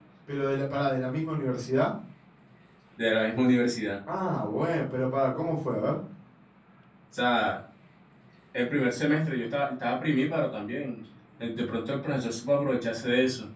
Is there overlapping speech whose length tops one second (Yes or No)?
No